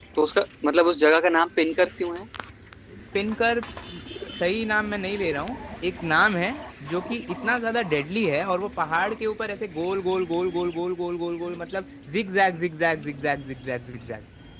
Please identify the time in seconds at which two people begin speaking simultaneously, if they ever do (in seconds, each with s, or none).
none